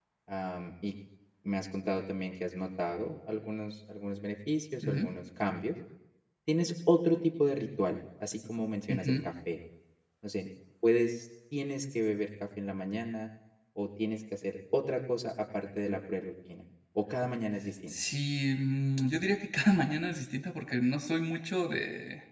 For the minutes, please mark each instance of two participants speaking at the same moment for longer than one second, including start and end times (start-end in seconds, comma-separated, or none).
none